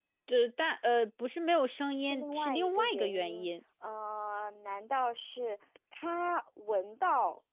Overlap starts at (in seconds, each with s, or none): 2.0 s